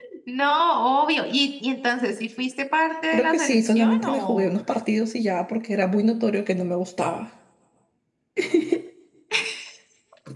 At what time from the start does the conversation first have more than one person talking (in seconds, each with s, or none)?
3.1 s